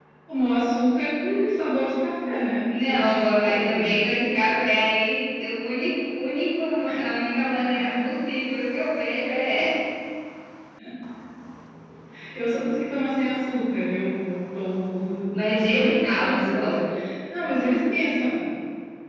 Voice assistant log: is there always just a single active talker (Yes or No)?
No